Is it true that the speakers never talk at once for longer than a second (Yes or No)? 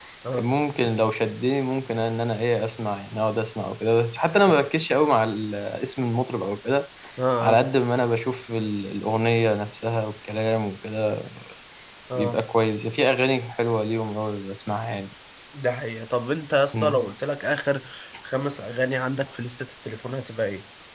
Yes